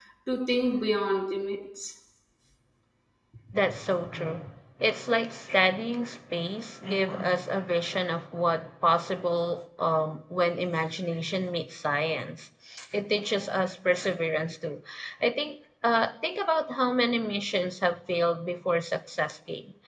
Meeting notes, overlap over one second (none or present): none